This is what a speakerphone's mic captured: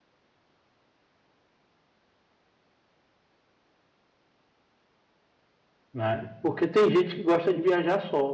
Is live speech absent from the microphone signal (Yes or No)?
No